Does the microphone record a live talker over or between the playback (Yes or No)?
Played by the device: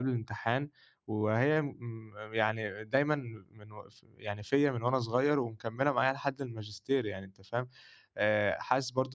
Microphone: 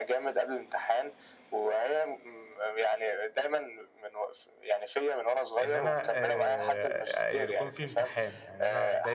Yes